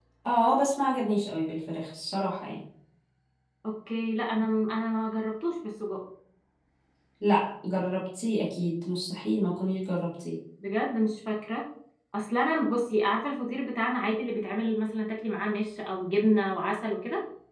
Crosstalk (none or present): none